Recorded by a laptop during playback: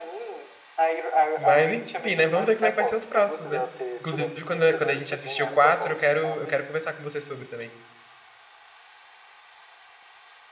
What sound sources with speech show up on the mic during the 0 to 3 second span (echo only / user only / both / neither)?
both